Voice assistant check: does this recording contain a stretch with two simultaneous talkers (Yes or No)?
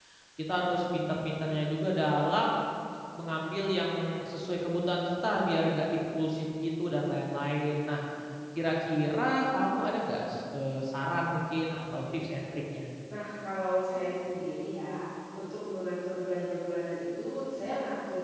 No